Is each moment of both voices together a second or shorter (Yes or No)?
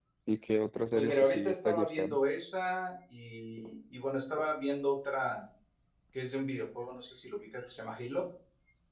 No